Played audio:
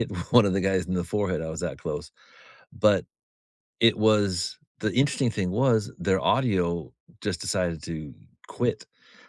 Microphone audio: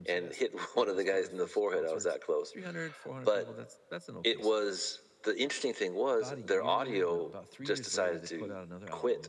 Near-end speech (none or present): present